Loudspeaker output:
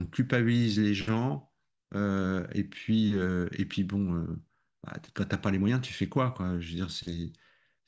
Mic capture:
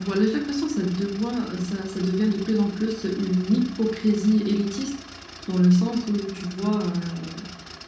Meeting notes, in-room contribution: present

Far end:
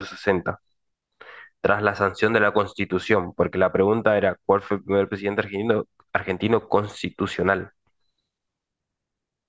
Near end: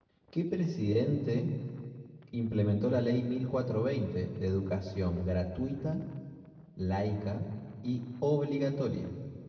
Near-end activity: present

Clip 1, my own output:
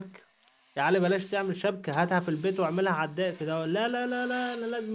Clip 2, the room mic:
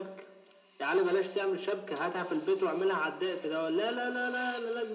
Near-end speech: none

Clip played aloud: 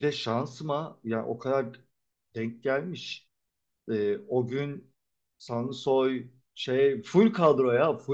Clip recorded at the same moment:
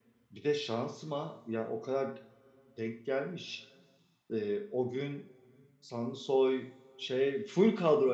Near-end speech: none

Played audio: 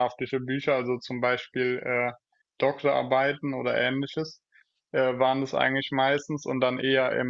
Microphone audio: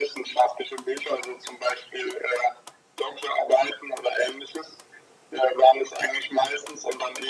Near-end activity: none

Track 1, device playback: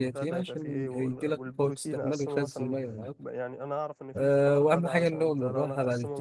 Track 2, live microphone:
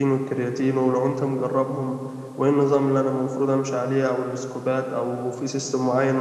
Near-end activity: present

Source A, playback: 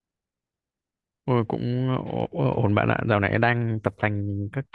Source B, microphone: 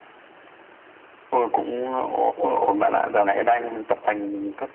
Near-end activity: none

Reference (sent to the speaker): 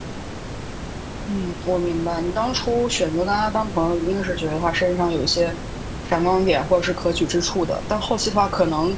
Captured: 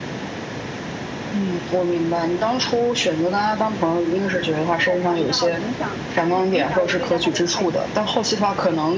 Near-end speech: present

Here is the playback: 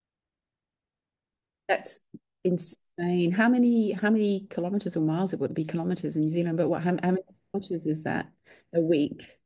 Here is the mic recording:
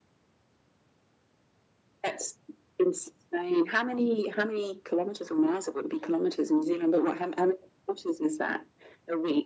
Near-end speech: none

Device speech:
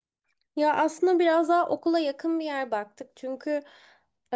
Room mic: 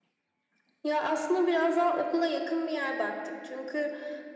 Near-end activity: none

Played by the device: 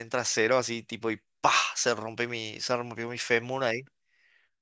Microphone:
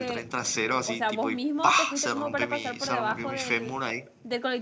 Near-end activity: present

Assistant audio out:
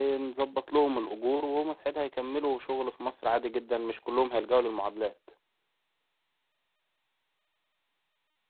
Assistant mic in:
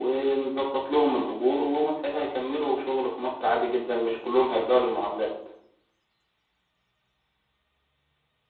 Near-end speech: none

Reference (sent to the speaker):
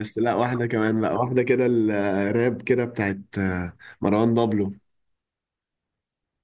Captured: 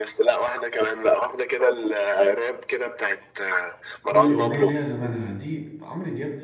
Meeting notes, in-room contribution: present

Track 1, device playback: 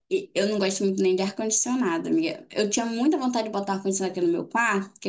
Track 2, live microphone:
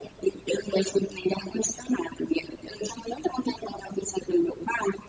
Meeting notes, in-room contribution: none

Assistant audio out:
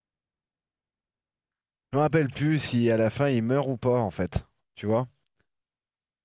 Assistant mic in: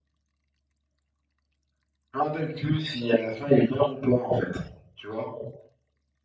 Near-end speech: none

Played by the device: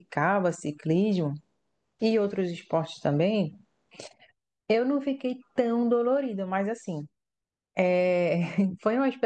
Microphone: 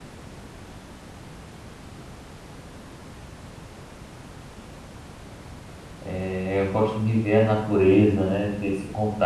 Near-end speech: present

